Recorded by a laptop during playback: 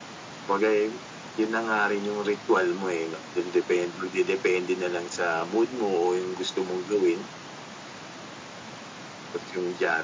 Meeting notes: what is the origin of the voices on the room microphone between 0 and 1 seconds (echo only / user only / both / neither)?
echo only